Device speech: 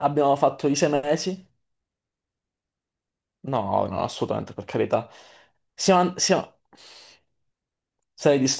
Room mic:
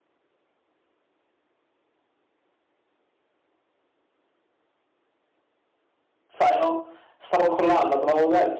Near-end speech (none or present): present